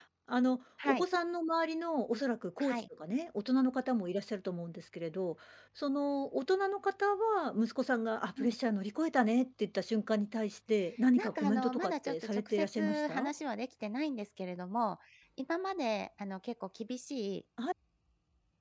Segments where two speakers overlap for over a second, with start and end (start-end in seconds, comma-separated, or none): 11.2-13.3